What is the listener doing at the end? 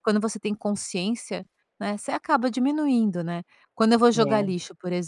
listening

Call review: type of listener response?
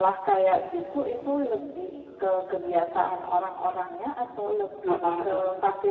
listening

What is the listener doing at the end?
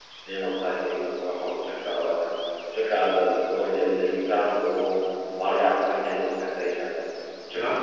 taking over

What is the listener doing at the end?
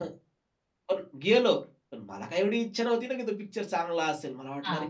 listening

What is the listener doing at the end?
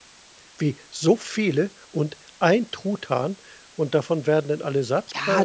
taking over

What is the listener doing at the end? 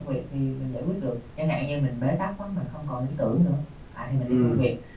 taking over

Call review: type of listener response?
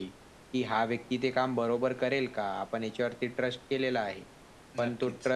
listening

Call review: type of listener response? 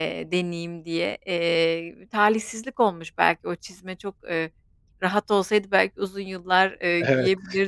listening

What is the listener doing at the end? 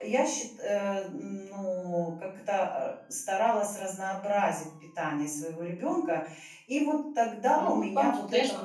taking over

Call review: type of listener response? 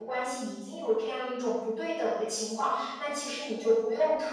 listening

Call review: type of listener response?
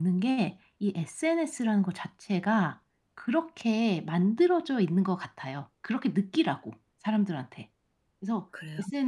listening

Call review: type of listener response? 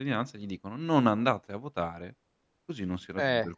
taking over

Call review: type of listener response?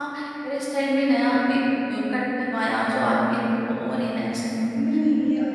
taking over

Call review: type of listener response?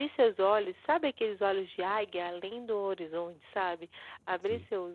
listening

